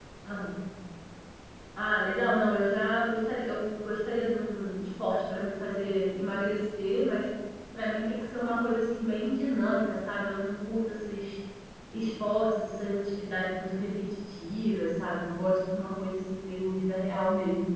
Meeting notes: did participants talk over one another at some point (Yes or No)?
No